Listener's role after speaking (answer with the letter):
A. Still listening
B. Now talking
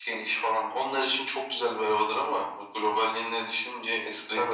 B